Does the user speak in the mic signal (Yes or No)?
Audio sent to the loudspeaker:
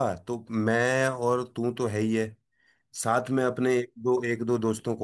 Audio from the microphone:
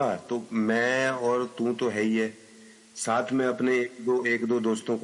No